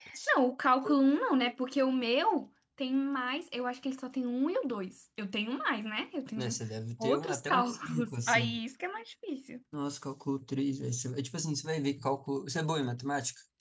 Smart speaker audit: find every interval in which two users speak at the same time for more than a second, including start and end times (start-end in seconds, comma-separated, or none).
7.0-8.6